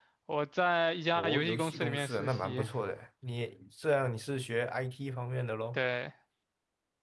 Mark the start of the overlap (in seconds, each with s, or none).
1.1 s